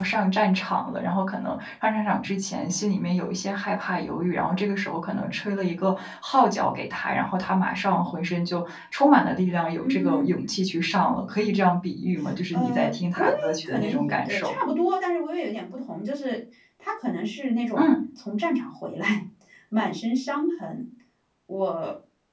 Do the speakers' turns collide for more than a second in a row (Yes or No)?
Yes